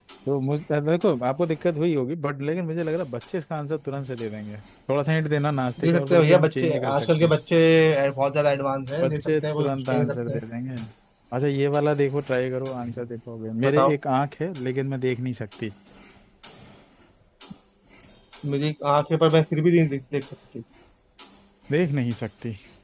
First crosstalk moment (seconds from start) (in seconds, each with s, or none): 5.8 s